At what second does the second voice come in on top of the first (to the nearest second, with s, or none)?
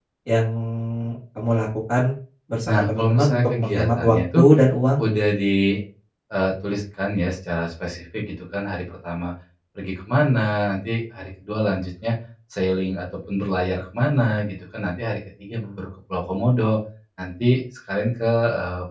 3 s